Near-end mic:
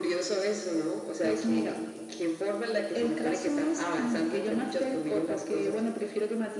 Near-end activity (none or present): none